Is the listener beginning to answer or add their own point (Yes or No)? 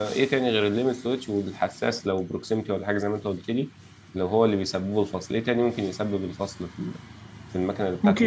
Yes